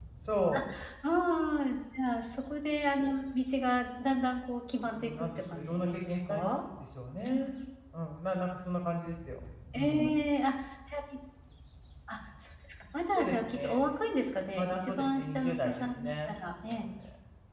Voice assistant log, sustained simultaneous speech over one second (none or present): present